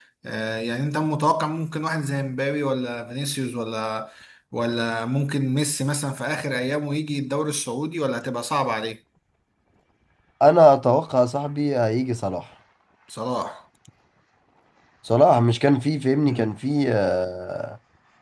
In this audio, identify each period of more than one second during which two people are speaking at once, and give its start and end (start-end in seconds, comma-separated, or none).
none